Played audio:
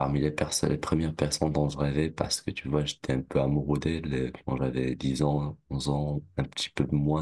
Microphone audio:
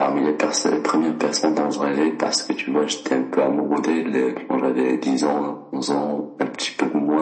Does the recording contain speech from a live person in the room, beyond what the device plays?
No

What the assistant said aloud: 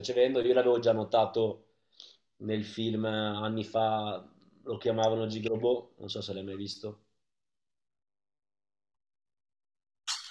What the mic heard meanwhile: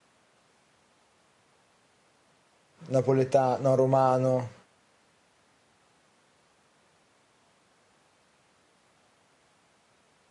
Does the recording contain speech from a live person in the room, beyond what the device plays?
Yes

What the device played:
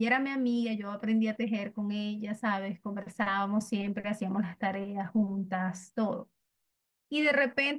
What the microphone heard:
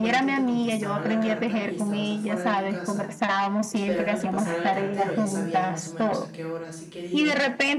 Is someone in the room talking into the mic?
Yes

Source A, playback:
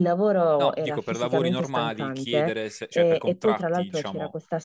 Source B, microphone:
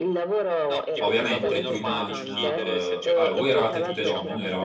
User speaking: Yes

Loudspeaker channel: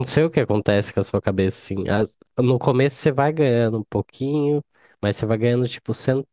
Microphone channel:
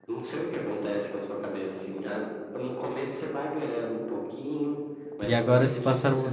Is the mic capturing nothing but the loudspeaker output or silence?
No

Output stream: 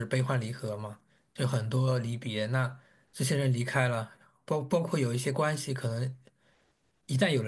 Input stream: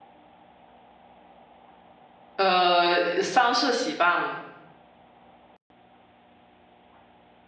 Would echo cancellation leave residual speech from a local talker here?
Yes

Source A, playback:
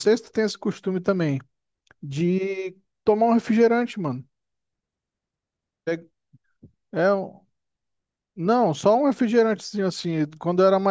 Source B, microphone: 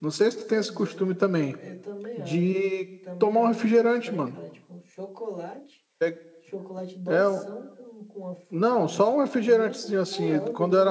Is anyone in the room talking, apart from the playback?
Yes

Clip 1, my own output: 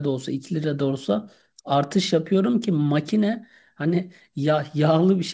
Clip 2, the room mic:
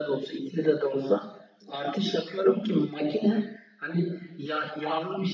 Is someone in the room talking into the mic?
No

